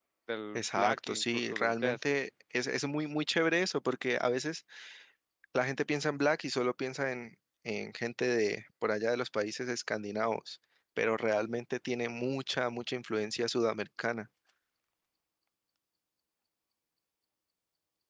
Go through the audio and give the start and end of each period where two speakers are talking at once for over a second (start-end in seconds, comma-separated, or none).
0.6-2.0